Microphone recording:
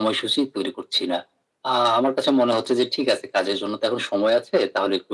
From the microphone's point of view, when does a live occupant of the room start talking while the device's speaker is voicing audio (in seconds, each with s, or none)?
none